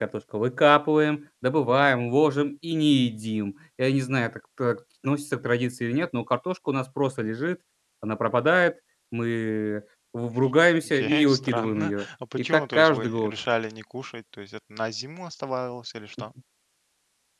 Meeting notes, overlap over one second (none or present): present